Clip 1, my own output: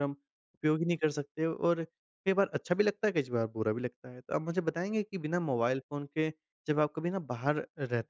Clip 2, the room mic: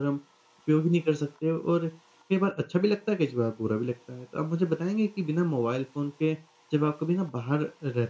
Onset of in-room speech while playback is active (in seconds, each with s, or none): none